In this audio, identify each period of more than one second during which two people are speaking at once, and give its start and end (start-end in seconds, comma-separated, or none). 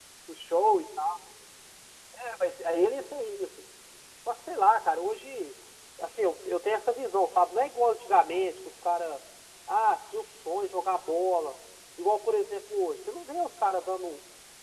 none